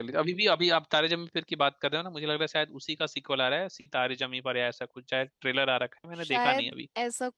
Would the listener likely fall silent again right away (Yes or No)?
No